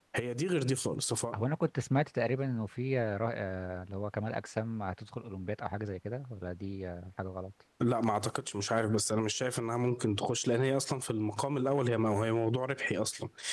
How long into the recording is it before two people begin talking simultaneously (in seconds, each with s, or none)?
none